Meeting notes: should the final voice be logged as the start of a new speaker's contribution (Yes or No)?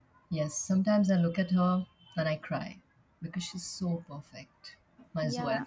Yes